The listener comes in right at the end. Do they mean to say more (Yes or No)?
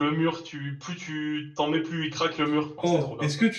Yes